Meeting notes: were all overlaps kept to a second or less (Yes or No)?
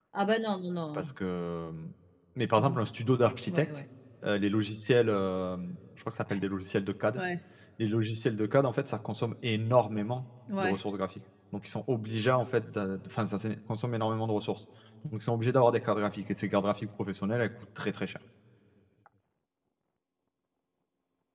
Yes